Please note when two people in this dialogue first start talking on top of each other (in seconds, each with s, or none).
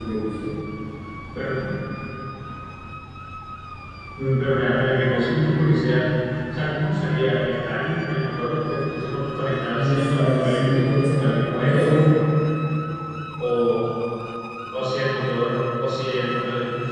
9.7 s